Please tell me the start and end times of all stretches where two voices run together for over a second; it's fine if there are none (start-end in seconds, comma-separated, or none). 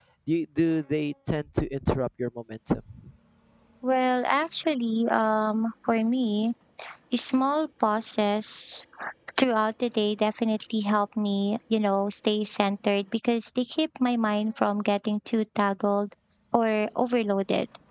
none